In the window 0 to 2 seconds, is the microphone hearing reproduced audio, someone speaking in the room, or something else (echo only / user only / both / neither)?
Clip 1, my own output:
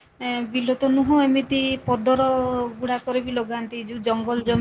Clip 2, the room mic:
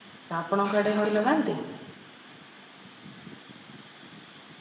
user only